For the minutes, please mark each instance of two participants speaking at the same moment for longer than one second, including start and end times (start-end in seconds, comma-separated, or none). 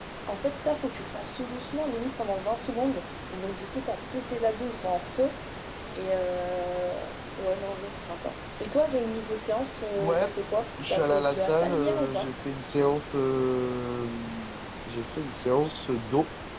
10.9-12.3